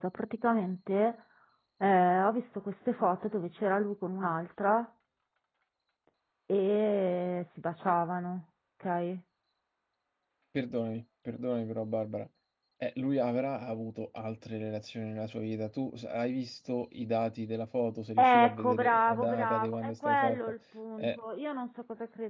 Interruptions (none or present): present